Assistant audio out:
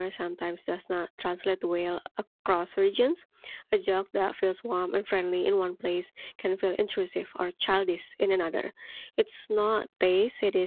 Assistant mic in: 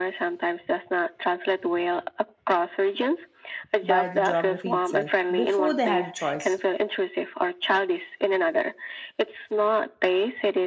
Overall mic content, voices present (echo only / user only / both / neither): both